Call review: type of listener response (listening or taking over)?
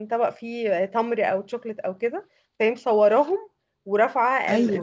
listening